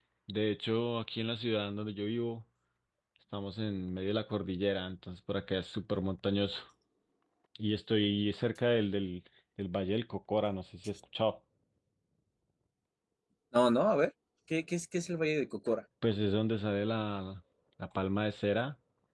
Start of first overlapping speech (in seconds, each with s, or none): none